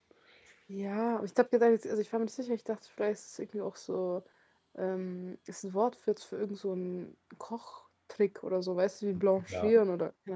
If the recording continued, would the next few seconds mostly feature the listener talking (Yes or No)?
Yes